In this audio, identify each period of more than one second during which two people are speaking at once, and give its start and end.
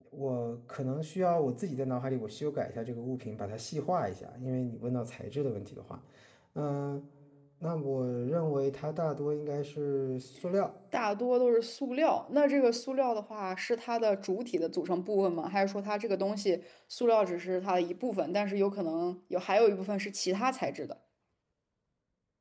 none

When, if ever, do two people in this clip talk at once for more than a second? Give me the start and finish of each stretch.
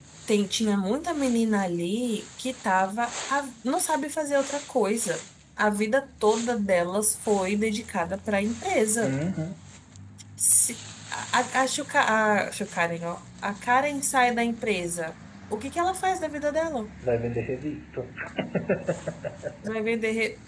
none

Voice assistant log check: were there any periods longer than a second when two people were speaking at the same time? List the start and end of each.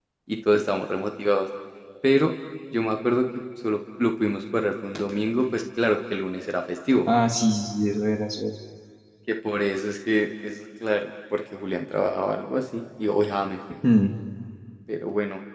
none

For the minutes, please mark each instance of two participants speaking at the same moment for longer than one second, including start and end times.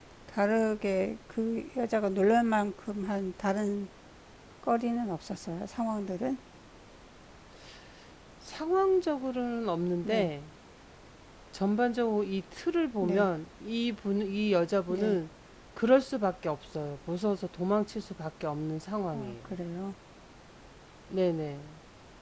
none

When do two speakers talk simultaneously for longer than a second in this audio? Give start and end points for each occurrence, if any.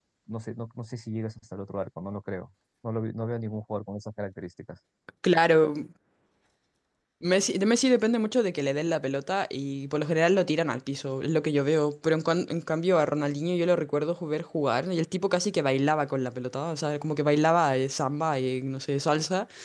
none

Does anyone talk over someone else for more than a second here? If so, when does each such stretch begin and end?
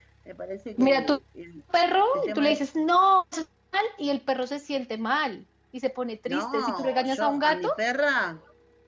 6.3-7.7

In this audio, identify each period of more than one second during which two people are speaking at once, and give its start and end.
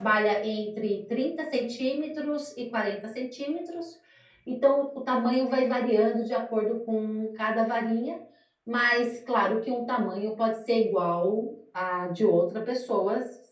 none

